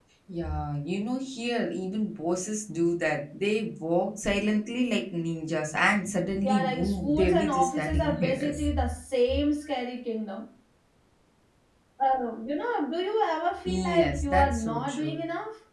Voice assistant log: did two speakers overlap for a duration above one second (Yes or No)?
Yes